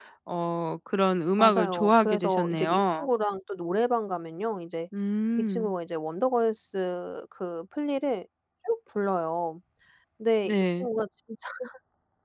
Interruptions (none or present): present